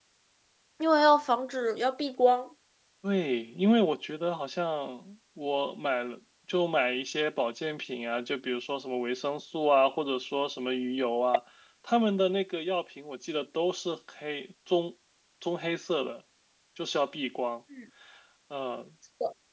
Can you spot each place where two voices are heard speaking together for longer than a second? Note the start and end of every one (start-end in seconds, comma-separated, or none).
none